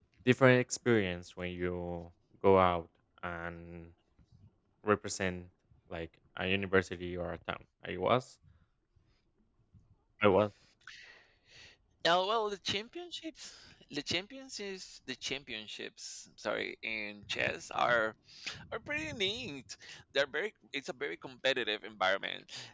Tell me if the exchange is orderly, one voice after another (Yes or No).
Yes